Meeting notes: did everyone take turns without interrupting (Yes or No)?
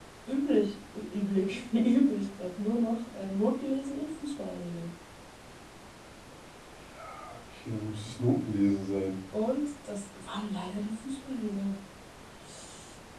Yes